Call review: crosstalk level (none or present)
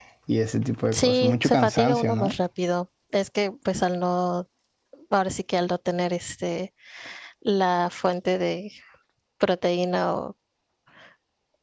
present